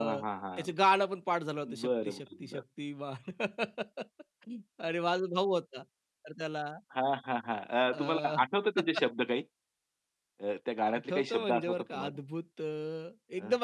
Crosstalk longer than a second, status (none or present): present